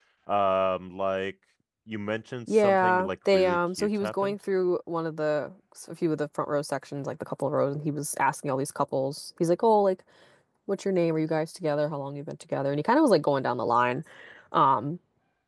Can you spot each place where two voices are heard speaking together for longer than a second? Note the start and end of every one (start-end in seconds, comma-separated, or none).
2.5-4.4